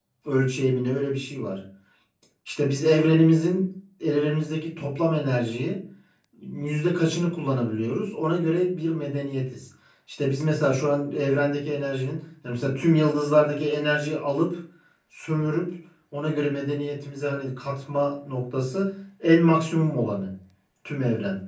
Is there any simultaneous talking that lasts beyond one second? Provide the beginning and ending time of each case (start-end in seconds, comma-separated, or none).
none